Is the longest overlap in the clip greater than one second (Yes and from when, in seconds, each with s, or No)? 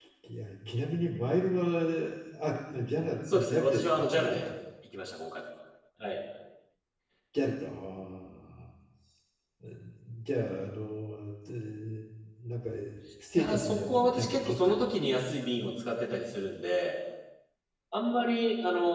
Yes, from 3.3 s